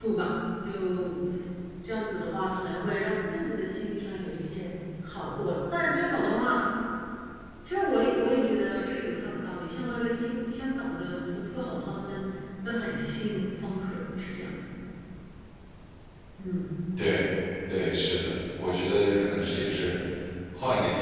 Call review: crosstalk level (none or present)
none